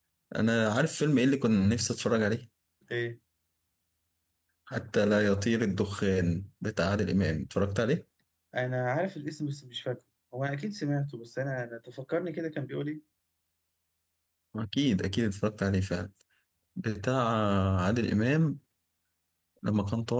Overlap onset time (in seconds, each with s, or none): none